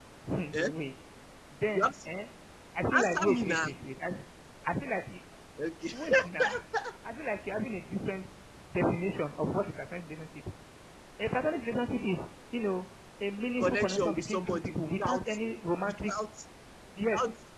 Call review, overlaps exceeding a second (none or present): present